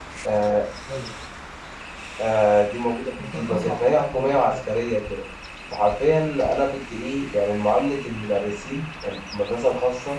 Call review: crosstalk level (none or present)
present